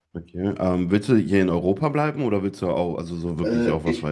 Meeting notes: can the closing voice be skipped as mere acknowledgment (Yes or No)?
No